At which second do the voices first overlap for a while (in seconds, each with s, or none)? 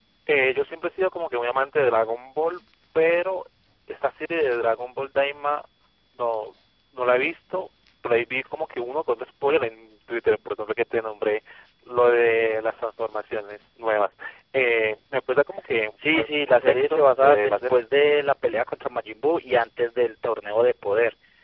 16.0 s